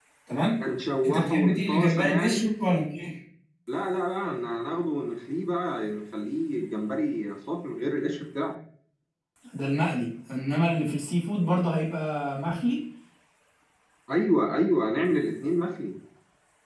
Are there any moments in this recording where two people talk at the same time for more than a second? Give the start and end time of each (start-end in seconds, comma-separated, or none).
1.1-2.5